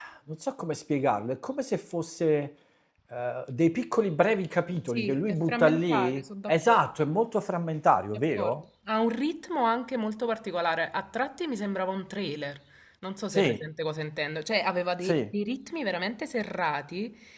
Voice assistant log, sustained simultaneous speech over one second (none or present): present